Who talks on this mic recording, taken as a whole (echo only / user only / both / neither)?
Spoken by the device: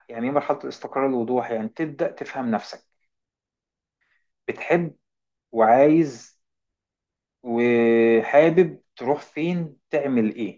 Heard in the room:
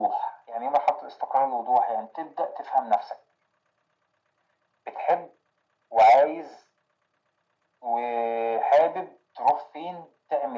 echo only